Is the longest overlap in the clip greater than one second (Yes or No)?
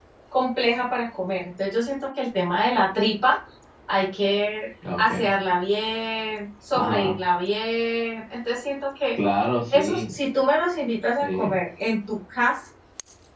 No